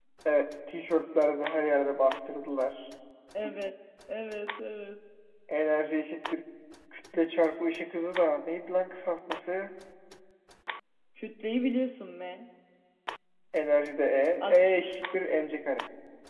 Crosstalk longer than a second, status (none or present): none